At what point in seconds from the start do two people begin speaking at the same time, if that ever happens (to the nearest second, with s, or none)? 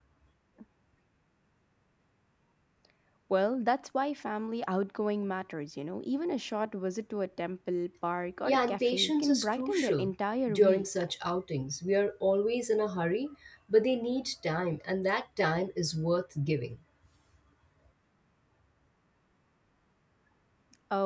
8 s